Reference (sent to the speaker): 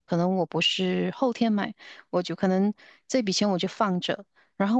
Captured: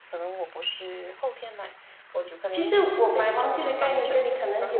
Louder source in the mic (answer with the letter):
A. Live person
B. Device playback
A